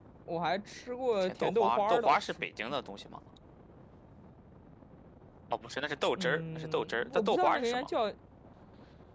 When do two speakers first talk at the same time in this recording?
1.2 s

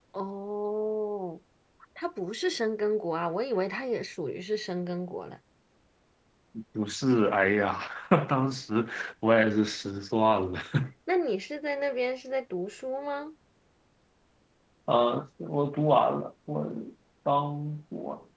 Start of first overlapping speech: none

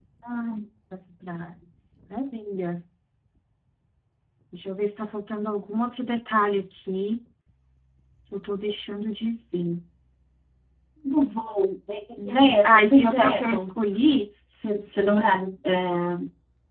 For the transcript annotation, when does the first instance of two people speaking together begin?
12.2 s

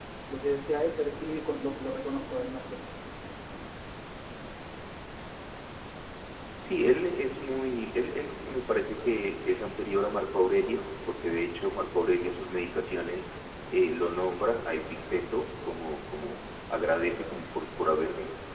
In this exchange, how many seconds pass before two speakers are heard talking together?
none

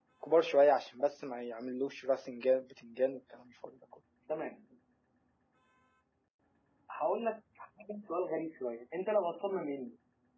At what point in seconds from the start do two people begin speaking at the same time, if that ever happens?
none

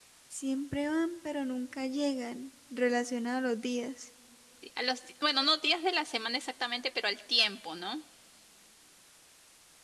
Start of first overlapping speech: none

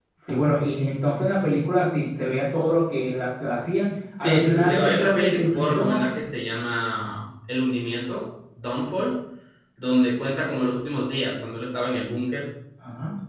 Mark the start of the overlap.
4.2 s

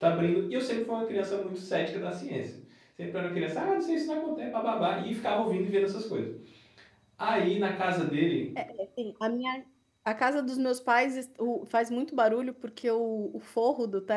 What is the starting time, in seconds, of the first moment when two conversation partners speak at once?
none

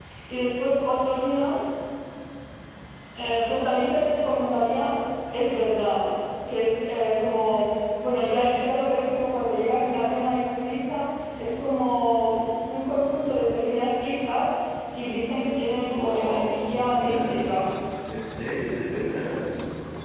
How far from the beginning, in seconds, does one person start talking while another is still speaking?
15.9 s

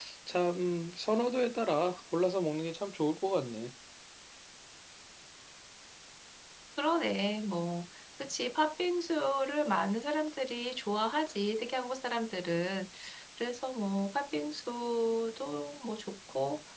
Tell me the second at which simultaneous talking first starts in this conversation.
none

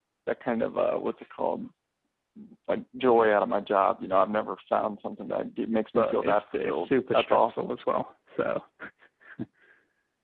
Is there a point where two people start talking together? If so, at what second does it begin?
6.0 s

